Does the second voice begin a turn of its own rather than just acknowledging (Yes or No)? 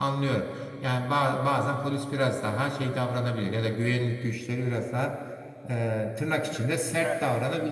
Yes